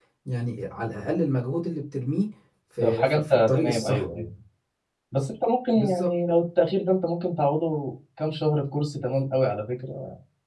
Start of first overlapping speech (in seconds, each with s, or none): 2.8 s